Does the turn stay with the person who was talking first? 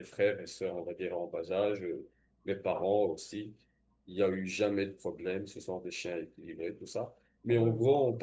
Yes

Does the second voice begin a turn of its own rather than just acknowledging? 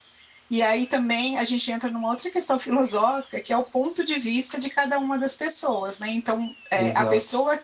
No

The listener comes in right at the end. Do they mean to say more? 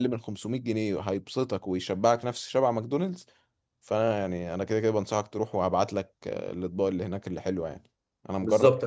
Yes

